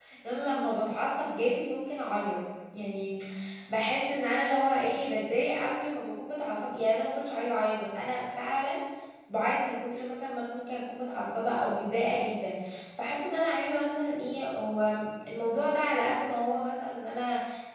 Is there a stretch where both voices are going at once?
No

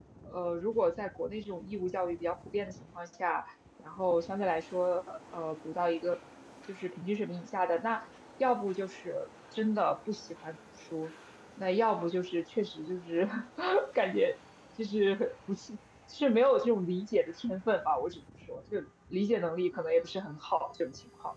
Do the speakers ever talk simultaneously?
No

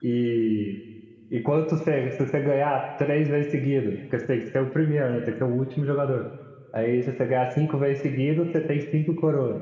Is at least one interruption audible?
No

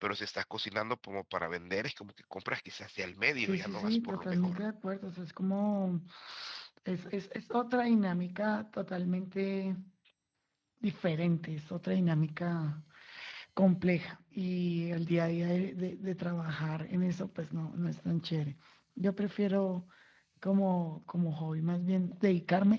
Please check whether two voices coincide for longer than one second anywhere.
Yes, from 3.4 s

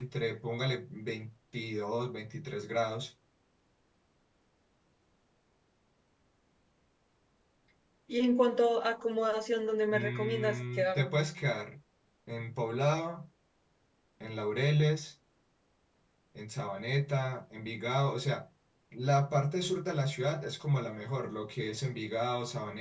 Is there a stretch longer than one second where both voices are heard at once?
Yes, from 9.9 s

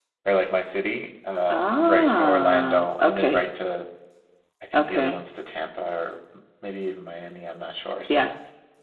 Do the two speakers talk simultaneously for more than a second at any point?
Yes, from 1.5 s

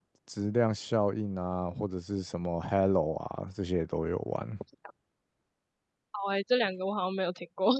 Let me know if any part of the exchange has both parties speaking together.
No

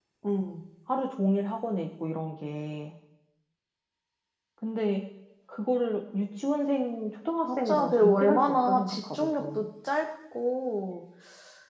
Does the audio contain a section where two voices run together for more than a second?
Yes, from 7.4 s

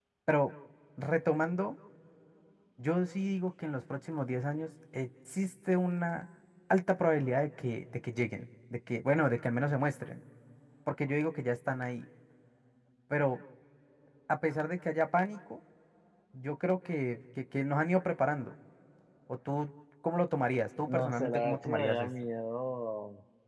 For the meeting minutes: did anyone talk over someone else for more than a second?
Yes, from 20.9 s

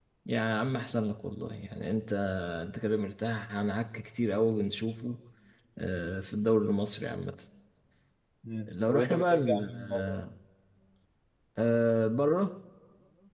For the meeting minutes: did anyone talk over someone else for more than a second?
Yes, from 8.7 s

